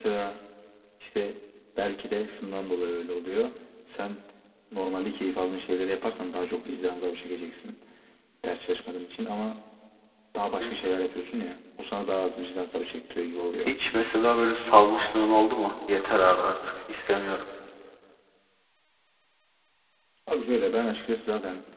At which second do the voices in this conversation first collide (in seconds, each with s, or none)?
none